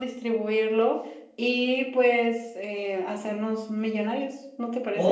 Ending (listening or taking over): taking over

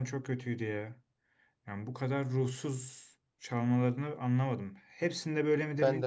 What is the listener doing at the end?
listening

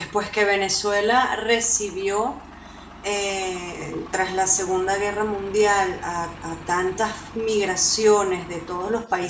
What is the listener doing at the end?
listening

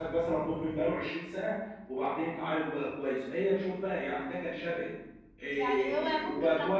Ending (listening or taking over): taking over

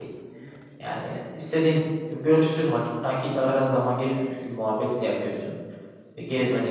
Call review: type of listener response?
listening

